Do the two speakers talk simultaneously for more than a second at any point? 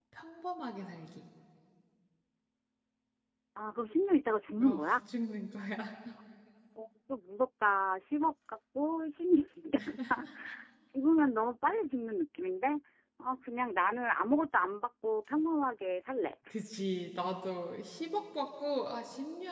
No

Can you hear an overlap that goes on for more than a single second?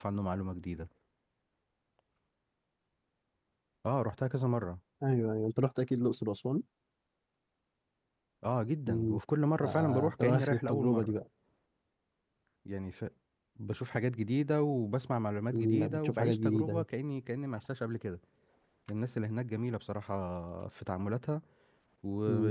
Yes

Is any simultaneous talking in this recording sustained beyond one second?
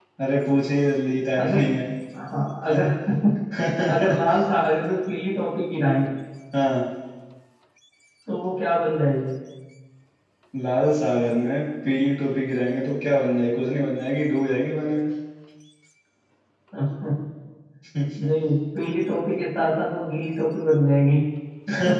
No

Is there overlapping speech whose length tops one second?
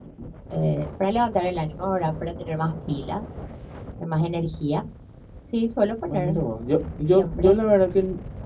No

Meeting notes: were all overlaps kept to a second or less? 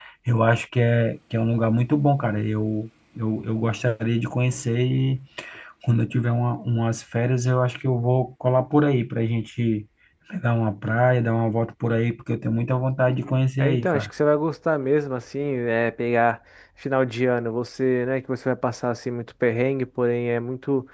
Yes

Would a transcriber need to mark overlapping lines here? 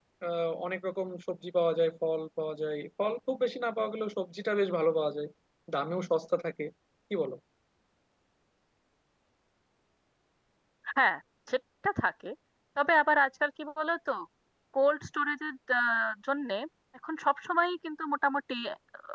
No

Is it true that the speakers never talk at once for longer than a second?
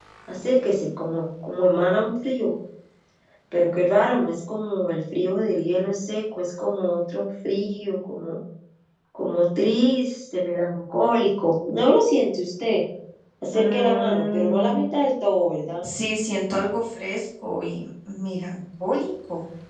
No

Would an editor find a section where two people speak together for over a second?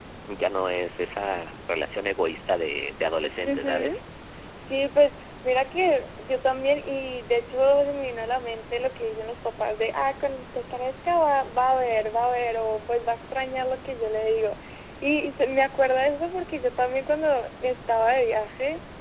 No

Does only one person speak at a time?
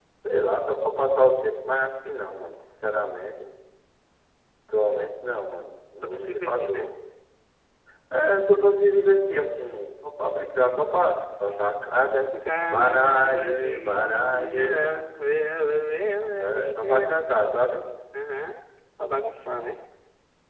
No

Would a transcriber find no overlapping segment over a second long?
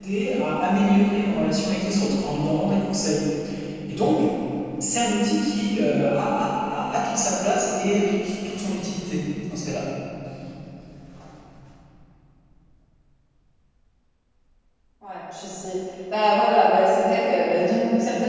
Yes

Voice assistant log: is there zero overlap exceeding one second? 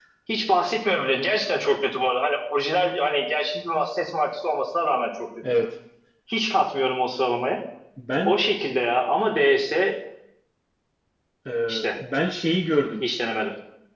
Yes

